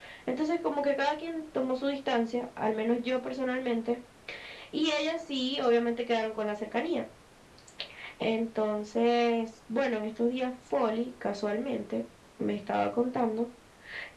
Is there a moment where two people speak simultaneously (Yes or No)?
No